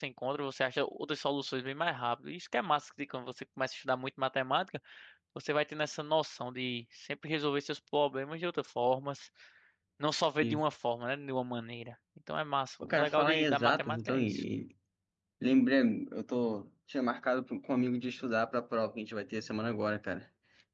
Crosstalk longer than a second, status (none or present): present